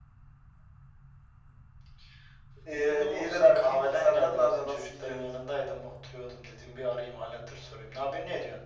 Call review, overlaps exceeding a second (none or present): present